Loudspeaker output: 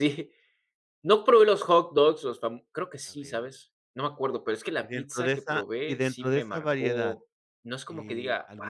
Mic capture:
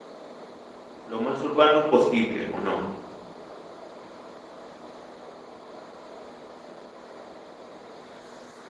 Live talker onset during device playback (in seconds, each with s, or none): 1.0 s